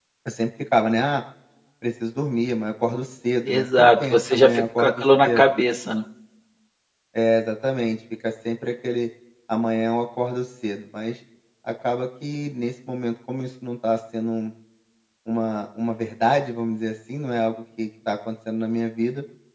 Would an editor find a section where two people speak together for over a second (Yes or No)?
Yes